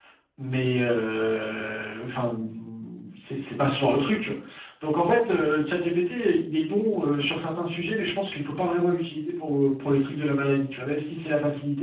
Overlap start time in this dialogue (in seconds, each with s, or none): none